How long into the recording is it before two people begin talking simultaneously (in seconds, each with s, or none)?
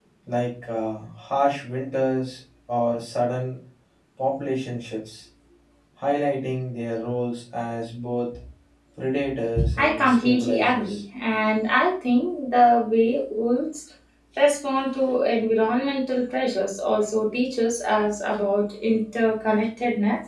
9.8 s